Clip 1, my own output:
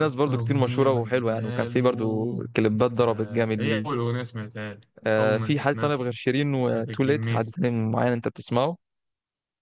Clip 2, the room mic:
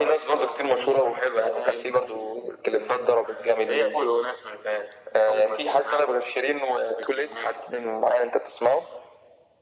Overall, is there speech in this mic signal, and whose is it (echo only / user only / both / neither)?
echo only